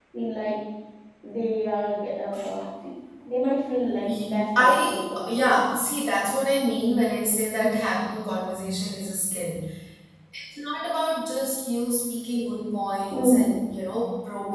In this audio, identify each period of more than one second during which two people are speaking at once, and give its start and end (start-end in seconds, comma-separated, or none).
4.2-5.7